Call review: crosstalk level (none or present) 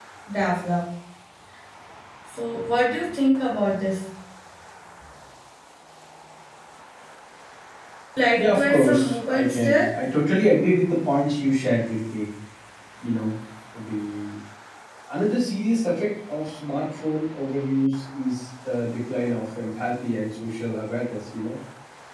present